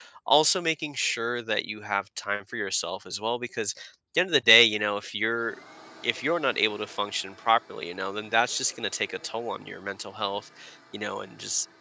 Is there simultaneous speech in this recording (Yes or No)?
No